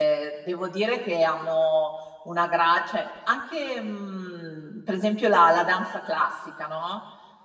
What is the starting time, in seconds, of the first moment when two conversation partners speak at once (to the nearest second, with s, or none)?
none